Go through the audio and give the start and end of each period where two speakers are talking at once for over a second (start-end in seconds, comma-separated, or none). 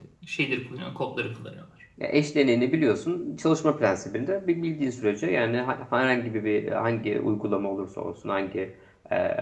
none